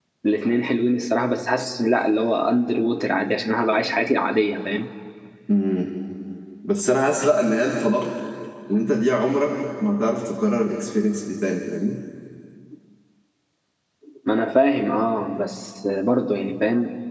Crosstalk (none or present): none